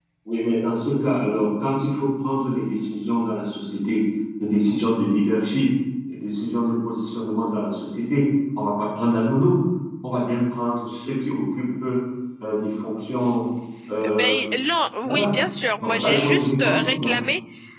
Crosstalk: present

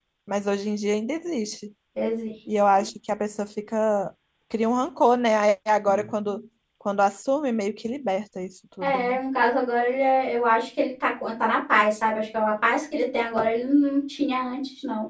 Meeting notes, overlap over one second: none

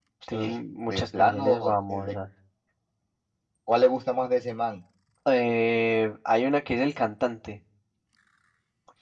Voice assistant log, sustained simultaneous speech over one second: present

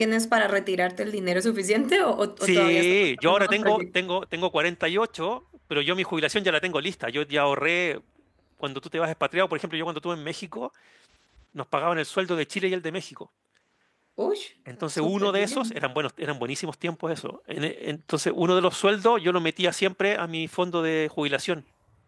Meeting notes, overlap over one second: present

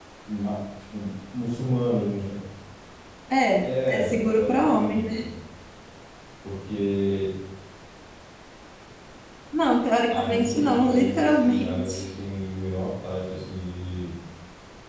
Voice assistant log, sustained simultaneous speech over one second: present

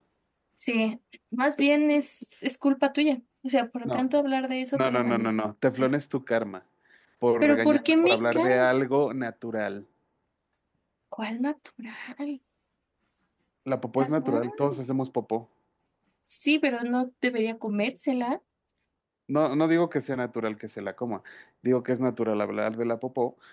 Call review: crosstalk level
present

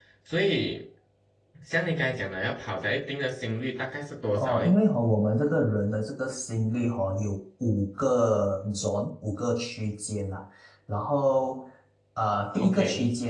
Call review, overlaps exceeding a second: none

